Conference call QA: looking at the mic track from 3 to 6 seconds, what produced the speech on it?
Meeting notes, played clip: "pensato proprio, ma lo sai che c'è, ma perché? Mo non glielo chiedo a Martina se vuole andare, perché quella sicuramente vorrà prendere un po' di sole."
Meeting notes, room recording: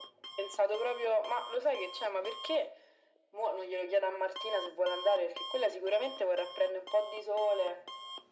echo only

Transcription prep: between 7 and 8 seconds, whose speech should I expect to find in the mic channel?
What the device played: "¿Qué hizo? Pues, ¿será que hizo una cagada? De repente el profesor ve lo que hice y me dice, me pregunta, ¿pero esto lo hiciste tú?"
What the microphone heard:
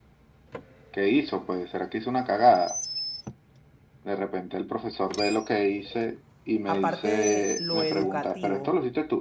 both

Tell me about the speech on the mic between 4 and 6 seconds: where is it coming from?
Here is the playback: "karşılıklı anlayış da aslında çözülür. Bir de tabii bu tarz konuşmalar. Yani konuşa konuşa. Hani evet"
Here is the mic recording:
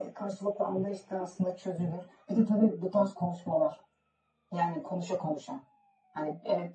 echo only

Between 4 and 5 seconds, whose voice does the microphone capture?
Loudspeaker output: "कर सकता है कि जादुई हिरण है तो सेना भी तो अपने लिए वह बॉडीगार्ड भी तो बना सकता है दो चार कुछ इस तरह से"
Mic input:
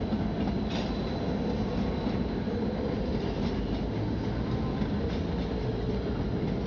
neither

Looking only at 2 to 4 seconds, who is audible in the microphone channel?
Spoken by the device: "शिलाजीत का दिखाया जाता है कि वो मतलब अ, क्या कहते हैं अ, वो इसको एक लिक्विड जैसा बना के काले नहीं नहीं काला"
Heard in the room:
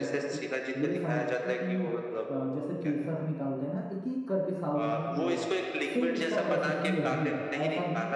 both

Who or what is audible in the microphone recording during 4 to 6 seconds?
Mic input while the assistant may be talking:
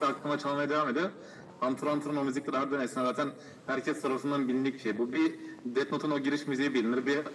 echo only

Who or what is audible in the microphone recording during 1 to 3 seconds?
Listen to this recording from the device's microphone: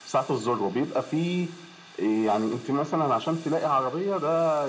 echo only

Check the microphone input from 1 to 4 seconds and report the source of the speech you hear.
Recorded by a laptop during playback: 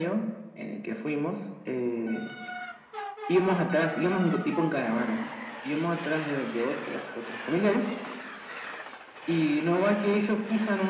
echo only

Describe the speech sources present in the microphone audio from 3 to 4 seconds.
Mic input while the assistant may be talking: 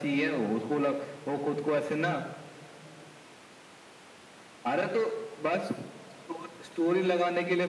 neither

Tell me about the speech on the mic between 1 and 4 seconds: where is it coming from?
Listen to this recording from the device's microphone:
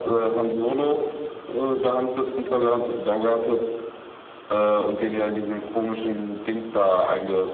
echo only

